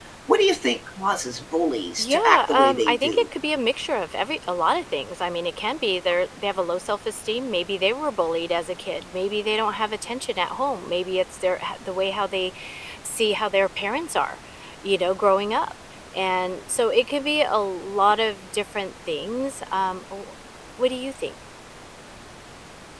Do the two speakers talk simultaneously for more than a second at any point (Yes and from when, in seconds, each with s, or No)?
Yes, from 2.0 s